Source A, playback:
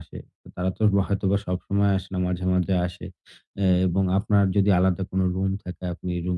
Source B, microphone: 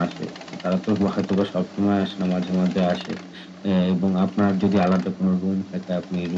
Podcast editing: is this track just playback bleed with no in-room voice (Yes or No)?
Yes